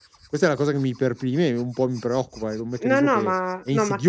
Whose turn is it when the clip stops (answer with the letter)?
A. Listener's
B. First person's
A